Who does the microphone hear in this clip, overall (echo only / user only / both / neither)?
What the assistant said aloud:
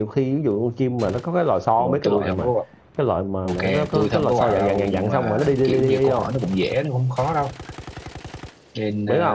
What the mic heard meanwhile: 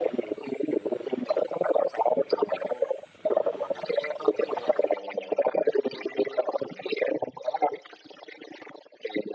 echo only